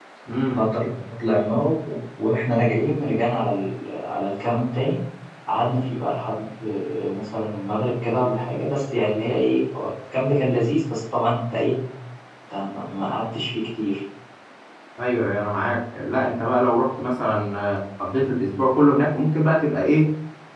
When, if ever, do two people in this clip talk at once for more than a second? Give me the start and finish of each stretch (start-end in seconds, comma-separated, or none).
none